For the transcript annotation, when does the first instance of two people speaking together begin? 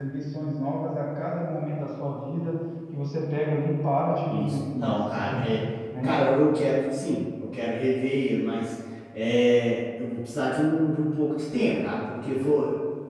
4.3 s

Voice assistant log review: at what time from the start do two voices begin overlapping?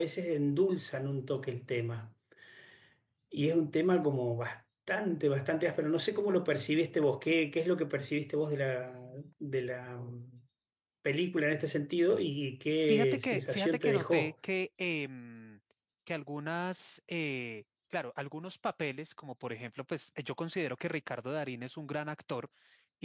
12.9 s

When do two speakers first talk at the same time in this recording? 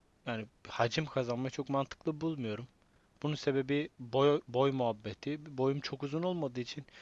none

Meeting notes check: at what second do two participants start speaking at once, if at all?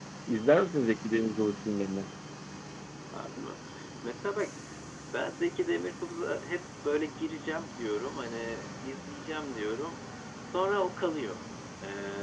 none

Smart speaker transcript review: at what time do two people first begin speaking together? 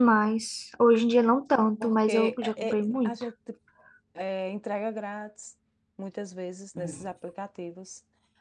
1.8 s

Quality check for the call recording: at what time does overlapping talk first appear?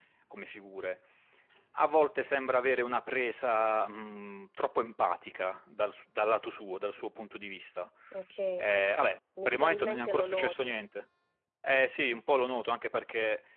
9.4 s

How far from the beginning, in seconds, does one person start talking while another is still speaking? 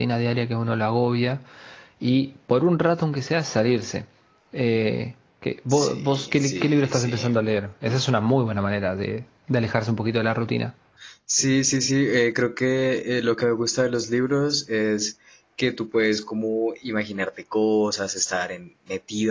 5.7 s

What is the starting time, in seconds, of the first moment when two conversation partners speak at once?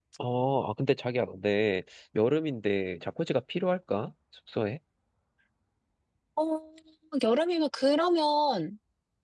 none

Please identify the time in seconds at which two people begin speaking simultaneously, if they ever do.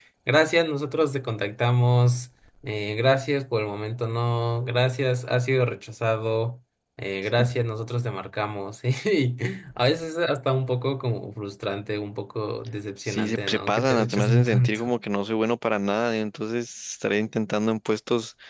13.1 s

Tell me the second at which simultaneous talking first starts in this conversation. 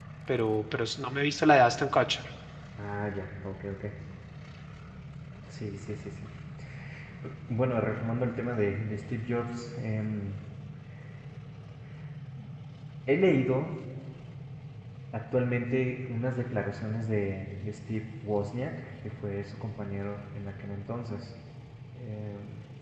none

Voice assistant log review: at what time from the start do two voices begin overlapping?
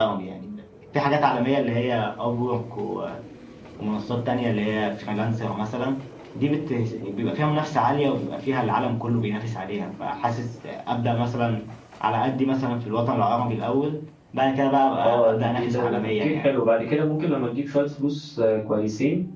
15.0 s

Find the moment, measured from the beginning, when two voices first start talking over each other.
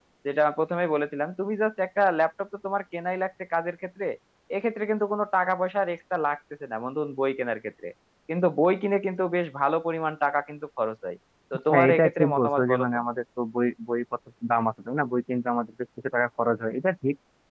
11.7 s

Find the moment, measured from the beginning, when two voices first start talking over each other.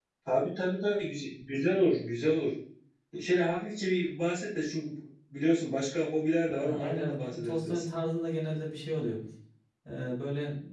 6.5 s

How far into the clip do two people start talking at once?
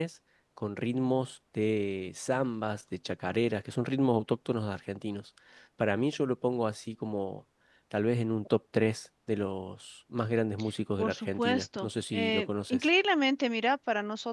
11.0 s

